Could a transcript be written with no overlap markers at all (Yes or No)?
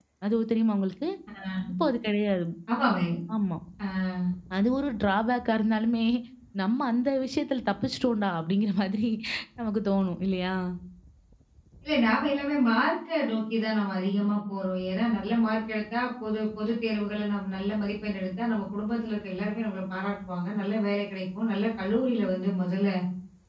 Yes